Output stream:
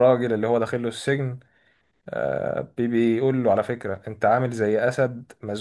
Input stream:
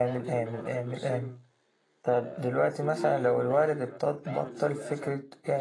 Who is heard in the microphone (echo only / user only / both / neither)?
both